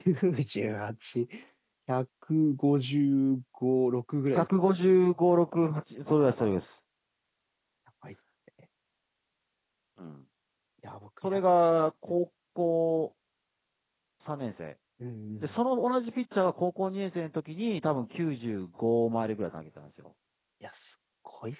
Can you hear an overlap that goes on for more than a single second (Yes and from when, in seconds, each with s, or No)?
No